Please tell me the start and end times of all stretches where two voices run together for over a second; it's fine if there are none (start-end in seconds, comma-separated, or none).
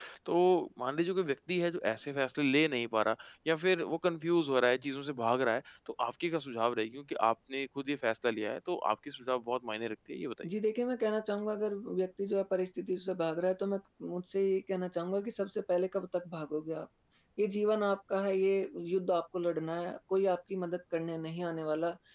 none